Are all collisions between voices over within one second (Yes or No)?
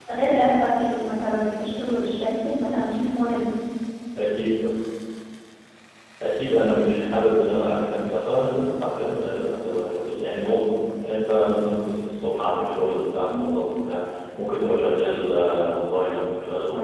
Yes